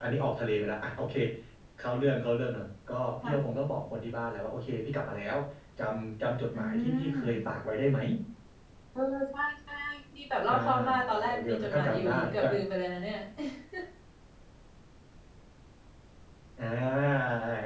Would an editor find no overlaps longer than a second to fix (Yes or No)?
No